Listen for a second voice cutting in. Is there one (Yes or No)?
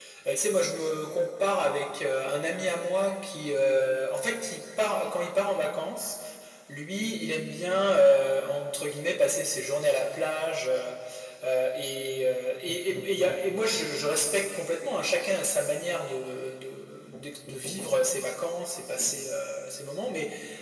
No